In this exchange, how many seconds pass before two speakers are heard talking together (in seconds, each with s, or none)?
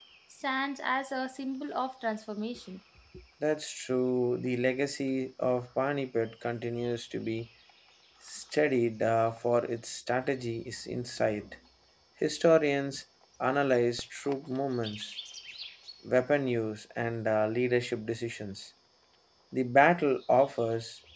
none